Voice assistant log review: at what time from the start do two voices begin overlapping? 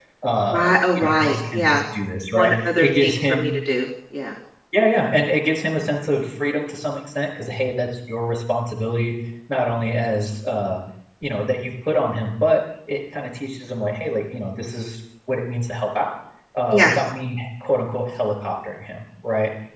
1 s

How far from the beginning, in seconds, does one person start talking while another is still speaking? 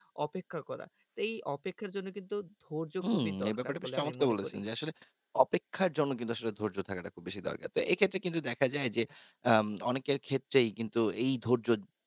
3 s

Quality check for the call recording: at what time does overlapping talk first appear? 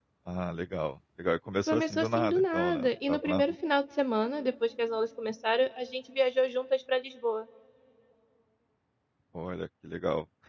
2 s

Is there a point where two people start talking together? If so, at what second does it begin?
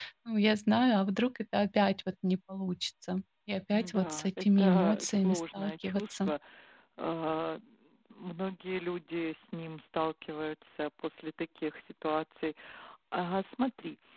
4 s

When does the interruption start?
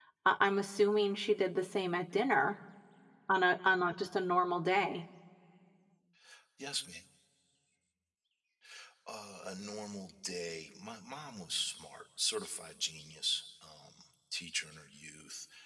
none

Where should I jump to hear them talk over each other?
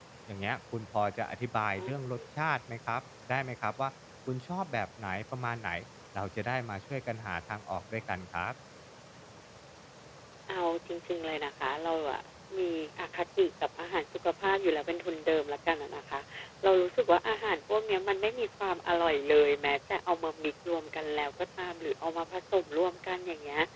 none

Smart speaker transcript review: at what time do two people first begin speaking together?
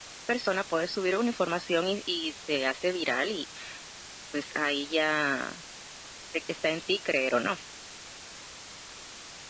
none

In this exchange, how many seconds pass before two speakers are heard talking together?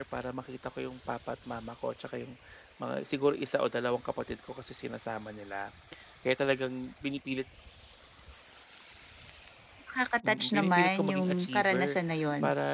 10 s

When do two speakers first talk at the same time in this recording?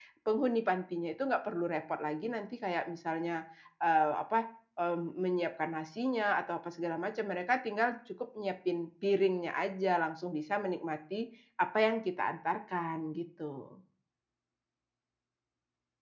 none

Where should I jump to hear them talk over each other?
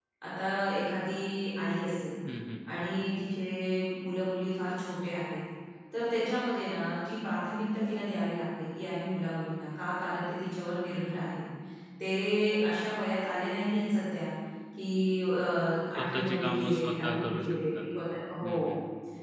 16 s

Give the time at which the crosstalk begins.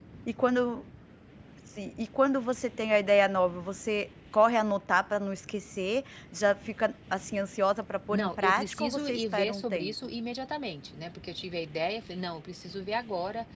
8 s

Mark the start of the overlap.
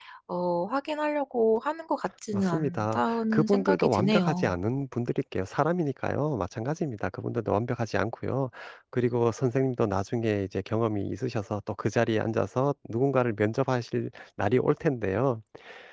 2 s

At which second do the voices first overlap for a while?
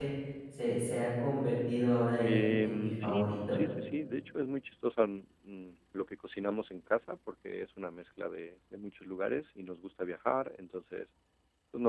2 s

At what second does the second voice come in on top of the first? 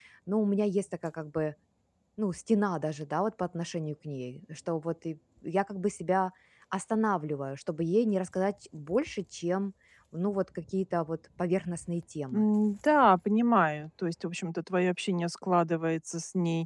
none

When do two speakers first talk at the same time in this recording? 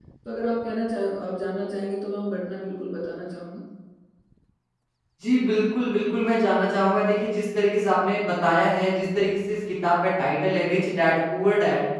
none

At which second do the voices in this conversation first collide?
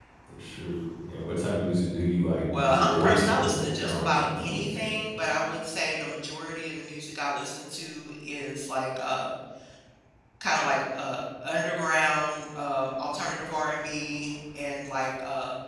3 s

